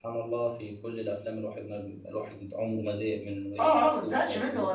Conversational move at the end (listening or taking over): taking over